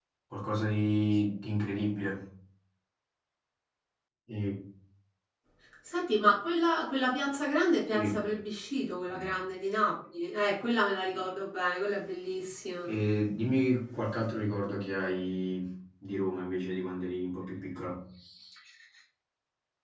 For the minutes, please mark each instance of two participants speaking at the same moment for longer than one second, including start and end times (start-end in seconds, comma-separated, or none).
none